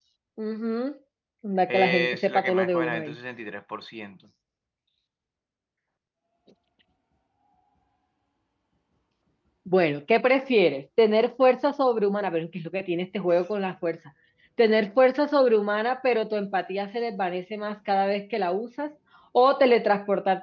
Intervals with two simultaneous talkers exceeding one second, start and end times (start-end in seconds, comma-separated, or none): 1.7-3.1